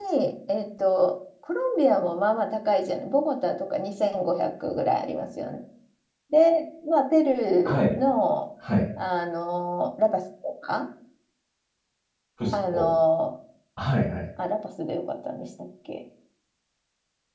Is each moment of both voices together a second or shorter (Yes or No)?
Yes